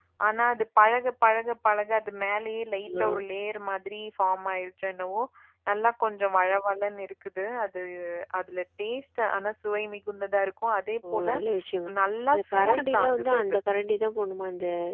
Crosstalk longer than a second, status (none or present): present